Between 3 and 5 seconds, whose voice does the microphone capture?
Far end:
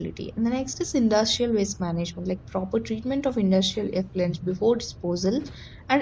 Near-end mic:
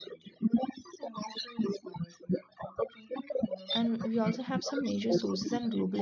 both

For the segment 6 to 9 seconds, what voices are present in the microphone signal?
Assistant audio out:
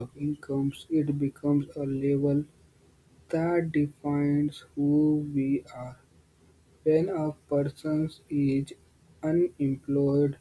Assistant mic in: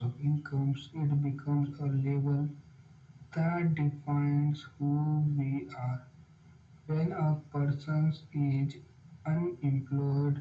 echo only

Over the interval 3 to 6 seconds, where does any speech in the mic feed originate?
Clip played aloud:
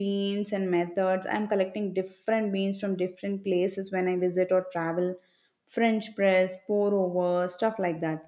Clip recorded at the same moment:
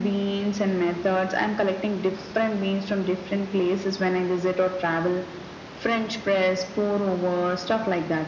echo only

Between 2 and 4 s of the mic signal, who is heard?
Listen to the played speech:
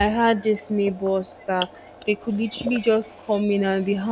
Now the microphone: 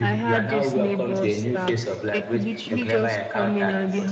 both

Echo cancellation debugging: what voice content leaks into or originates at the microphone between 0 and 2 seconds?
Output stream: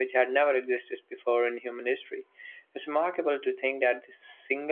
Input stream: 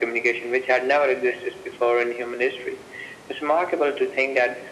echo only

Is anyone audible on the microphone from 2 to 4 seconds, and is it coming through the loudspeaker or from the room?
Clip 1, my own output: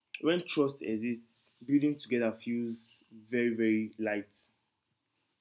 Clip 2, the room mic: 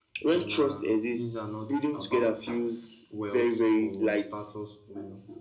both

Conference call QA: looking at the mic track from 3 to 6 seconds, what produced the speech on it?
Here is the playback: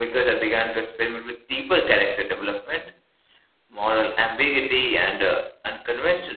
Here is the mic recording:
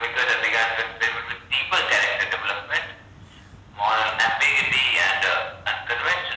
echo only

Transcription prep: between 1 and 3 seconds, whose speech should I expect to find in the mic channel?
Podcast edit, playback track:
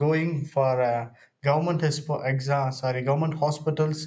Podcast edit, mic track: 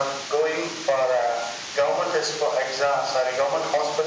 echo only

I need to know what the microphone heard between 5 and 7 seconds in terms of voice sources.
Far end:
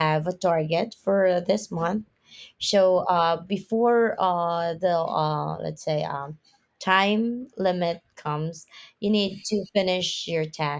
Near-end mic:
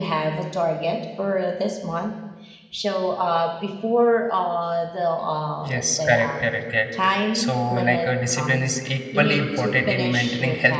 both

